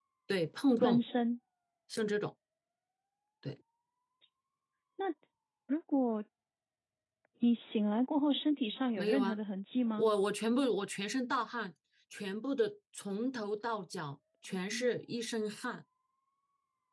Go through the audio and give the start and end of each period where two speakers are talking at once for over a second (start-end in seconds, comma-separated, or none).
none